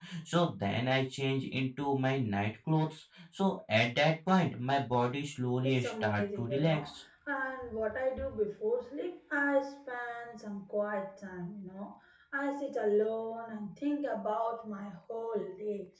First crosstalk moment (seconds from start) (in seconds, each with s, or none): 5.6 s